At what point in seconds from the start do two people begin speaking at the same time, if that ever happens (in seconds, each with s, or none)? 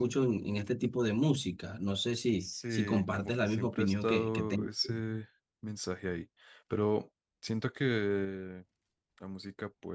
2.4 s